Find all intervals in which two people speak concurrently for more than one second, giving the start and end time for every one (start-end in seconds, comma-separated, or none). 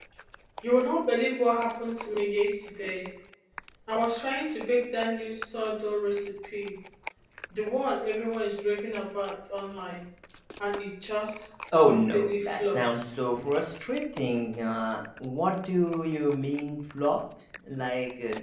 11.8-13.1